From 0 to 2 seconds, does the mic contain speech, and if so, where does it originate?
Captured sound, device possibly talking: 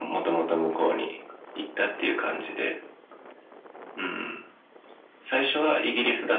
echo only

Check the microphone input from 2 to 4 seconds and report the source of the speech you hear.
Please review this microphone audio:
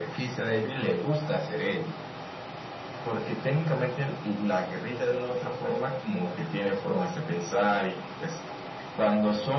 echo only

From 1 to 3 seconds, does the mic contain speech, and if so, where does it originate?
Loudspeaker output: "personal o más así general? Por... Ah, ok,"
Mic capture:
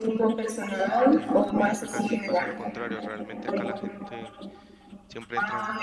both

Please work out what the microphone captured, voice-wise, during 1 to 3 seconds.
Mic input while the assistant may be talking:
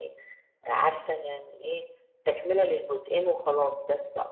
echo only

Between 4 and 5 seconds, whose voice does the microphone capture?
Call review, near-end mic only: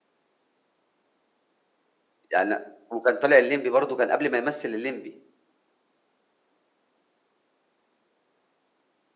user only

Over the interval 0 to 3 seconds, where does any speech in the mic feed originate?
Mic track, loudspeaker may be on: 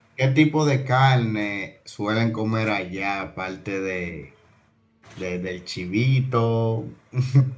user only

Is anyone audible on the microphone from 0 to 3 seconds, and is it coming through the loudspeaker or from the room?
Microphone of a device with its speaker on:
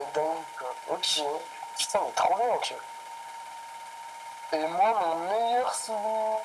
echo only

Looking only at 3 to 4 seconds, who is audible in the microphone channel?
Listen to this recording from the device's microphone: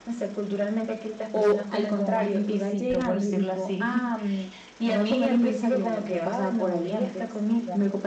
both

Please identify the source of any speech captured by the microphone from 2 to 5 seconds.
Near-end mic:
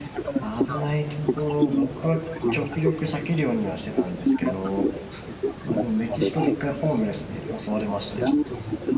both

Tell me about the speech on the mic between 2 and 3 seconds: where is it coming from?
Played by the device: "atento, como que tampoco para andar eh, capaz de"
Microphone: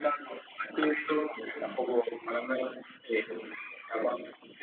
echo only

